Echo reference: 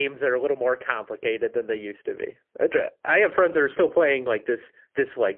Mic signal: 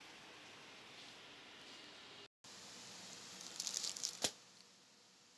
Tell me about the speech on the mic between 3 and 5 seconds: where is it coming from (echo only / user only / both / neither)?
neither